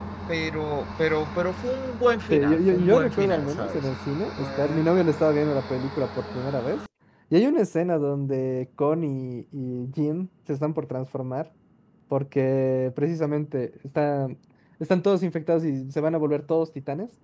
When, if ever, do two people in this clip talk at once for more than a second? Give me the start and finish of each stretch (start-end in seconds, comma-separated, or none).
2.3-3.9